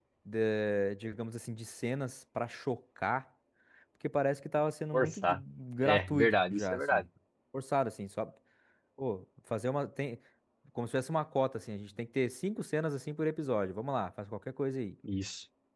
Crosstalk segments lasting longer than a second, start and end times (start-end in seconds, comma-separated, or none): 5.8-7.0